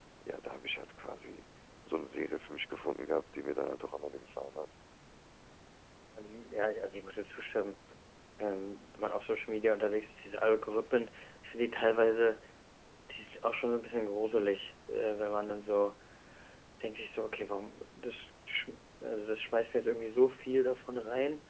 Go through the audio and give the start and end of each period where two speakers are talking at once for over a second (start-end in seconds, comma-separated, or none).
none